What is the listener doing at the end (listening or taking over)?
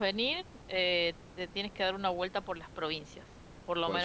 listening